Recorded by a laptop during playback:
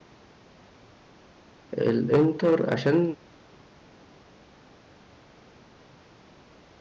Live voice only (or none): الانتر عشان